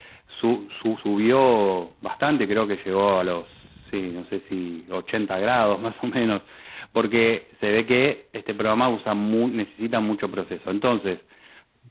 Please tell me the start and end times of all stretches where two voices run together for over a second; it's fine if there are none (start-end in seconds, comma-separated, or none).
none